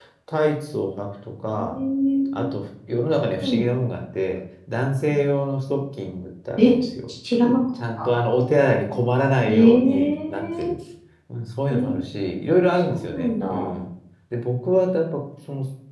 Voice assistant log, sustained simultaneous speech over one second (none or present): present